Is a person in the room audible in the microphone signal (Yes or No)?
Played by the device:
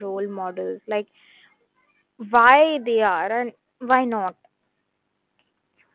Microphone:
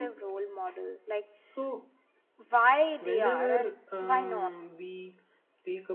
Yes